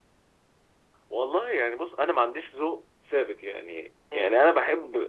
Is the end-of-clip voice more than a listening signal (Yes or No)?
No